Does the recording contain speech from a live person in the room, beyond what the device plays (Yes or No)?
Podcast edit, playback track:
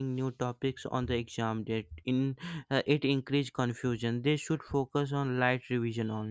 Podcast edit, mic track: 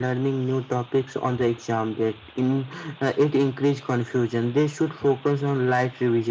No